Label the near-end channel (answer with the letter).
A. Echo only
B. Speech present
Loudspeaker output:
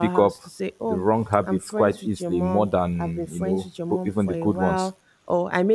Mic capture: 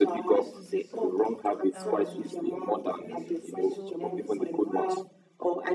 B